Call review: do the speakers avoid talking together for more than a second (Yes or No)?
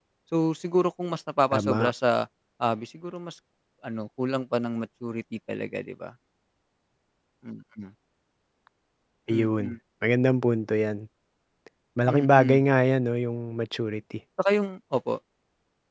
Yes